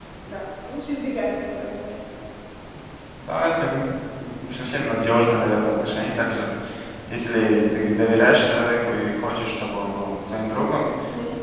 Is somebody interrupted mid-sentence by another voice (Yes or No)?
No